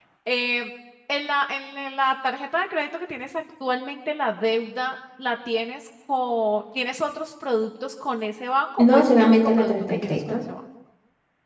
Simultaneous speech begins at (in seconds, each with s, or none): 8.8 s